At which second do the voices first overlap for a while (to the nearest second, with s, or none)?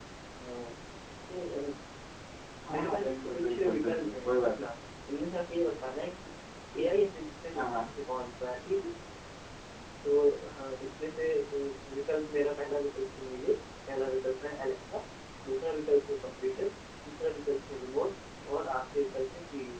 3 s